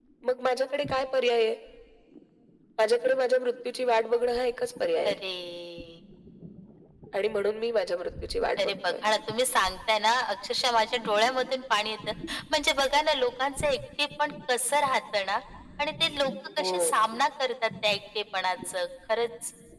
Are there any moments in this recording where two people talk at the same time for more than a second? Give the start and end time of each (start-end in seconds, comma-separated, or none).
none